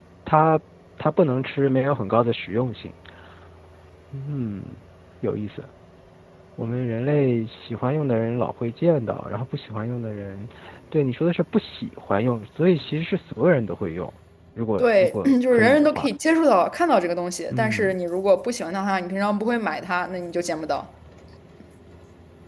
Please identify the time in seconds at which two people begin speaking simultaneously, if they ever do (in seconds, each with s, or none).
14.8 s